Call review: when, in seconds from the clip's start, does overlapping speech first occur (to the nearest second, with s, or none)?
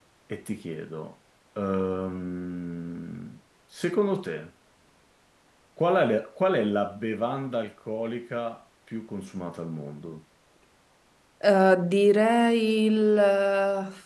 none